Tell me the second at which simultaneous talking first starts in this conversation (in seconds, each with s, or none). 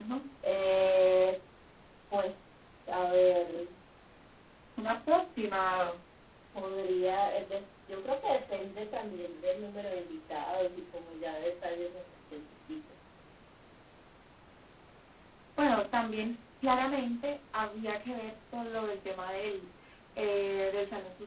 none